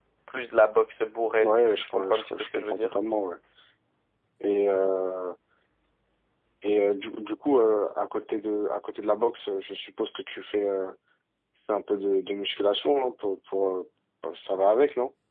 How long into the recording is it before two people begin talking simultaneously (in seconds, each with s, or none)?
1.4 s